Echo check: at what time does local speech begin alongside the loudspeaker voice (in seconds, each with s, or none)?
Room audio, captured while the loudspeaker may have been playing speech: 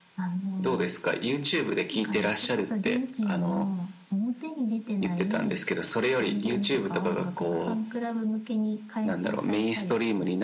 none